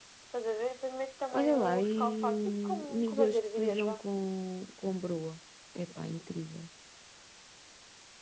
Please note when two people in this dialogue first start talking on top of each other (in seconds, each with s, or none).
1.3 s